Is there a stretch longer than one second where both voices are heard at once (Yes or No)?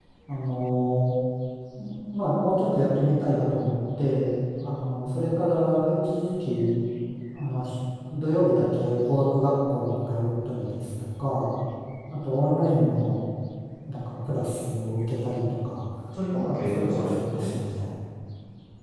Yes